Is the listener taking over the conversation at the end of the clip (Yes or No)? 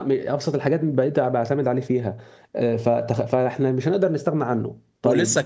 Yes